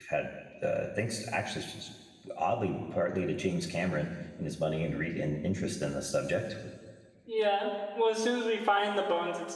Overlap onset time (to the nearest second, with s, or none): none